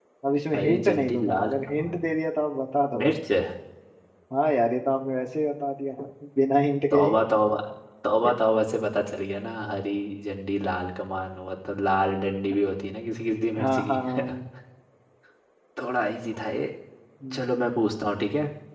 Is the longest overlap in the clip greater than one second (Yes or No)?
Yes